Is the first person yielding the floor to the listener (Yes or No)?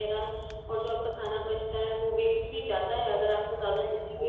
Yes